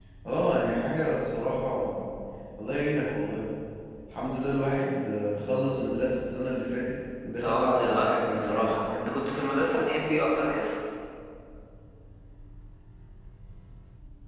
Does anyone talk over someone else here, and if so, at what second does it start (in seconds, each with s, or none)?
7.4 s